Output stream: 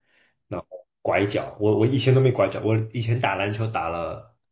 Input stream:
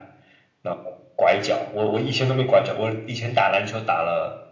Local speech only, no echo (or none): none